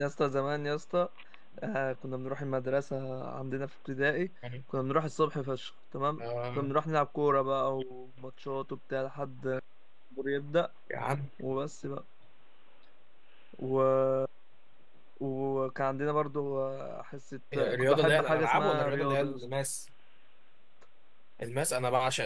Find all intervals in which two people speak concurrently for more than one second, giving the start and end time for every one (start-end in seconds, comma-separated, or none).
17.6-19.4